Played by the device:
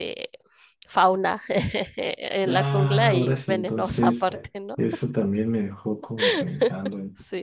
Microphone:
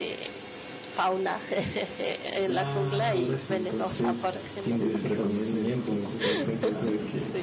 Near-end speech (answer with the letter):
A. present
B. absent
A